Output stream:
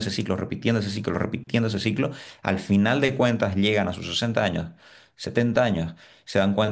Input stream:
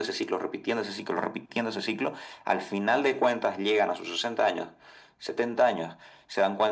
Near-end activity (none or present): none